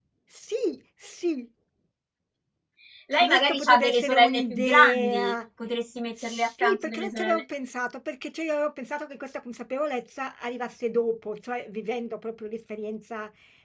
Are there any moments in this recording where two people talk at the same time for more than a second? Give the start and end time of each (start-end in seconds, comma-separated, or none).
3.1-5.3, 6.2-7.4